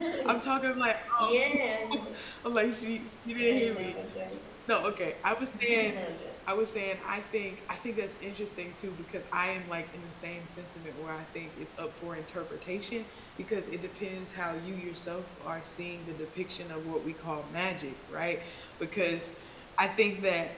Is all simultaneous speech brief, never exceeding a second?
Yes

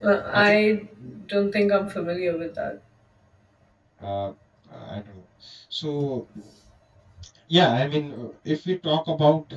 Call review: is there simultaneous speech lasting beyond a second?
No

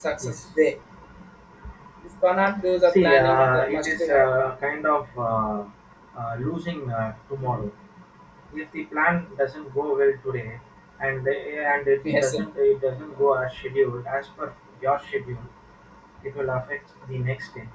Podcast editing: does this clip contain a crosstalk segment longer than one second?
Yes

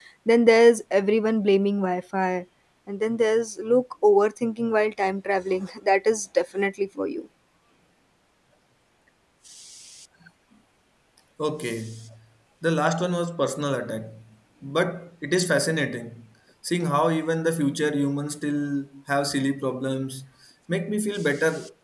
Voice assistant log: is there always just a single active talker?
Yes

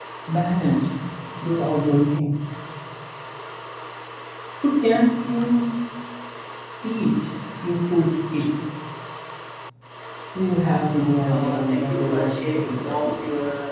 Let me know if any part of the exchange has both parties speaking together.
Yes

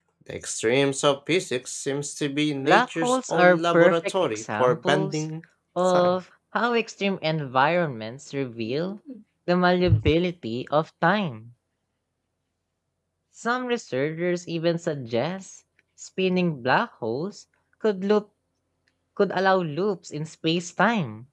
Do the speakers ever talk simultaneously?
Yes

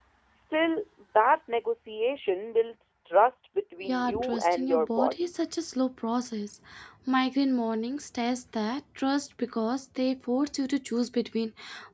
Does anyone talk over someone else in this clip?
Yes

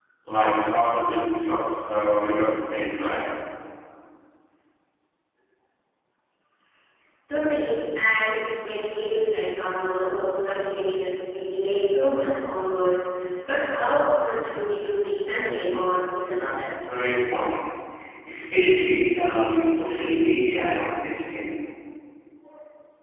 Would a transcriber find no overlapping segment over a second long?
Yes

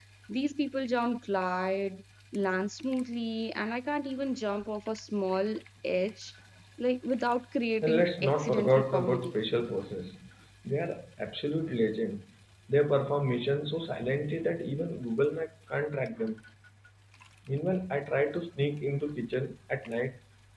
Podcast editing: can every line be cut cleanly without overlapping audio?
No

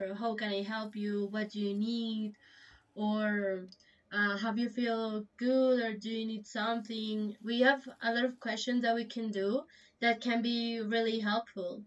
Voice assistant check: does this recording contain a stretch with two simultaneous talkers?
No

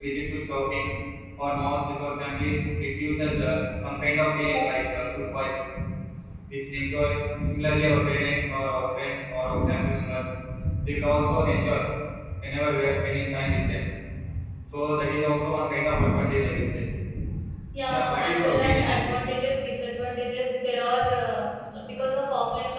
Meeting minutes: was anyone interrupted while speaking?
Yes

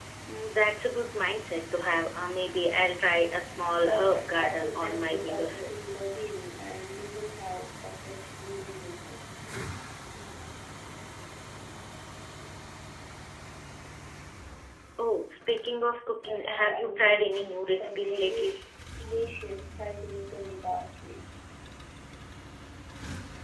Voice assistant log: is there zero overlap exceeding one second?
No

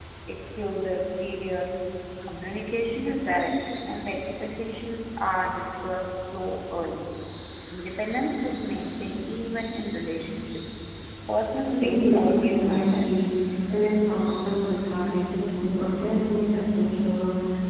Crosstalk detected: Yes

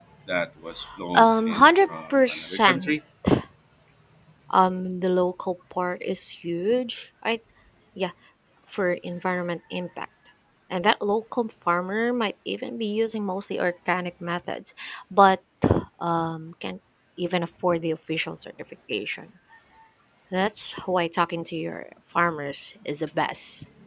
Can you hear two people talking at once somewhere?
Yes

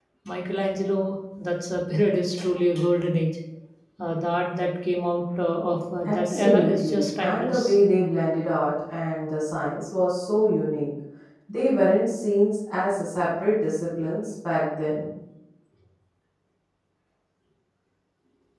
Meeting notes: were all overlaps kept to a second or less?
No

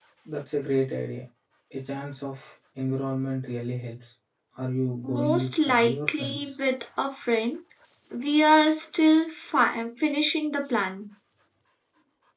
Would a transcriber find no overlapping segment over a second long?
No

